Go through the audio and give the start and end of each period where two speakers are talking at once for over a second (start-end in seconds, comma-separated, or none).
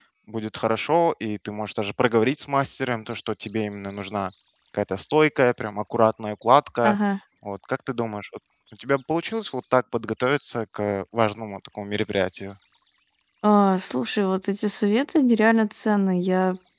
none